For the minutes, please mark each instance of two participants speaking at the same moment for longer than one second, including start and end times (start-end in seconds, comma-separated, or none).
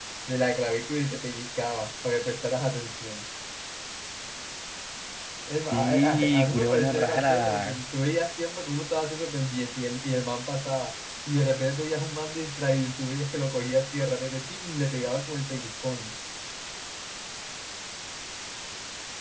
5.7-7.8